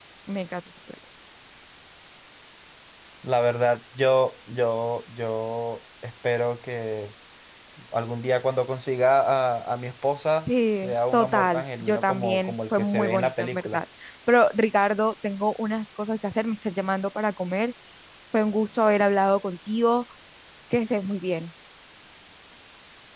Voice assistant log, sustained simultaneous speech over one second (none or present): present